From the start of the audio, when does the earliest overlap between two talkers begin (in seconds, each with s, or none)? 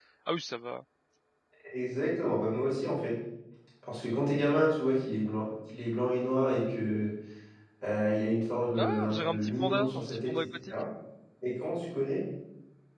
8.8 s